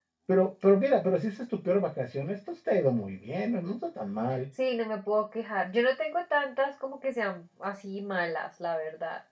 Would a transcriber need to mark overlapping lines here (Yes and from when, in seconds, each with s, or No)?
No